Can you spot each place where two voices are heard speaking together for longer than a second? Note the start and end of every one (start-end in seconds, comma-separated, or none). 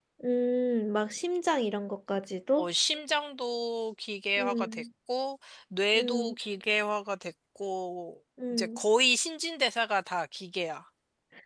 none